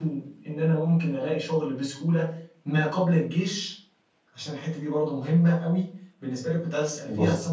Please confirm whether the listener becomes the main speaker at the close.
No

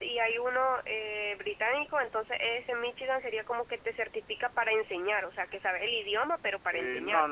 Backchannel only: No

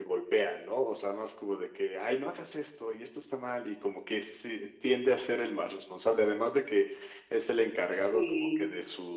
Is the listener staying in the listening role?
Yes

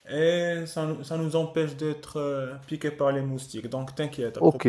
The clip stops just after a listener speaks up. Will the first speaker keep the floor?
No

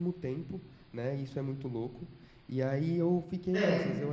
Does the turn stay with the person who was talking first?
Yes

